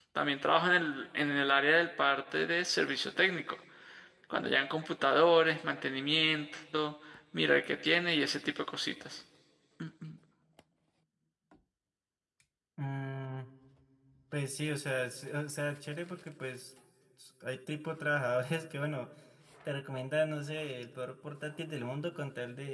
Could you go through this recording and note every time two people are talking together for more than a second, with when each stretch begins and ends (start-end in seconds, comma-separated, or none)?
none